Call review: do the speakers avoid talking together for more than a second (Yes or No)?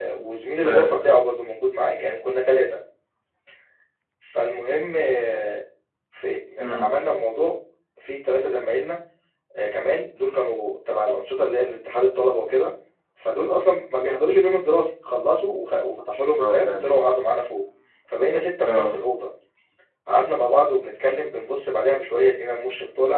Yes